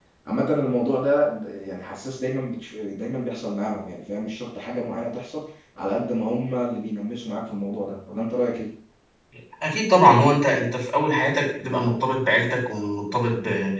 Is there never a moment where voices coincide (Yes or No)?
Yes